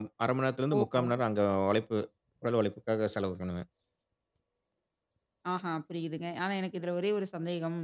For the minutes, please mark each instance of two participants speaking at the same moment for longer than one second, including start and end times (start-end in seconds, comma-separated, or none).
none